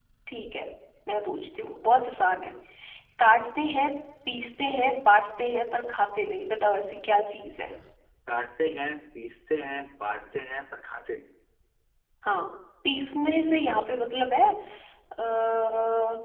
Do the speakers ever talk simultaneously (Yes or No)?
No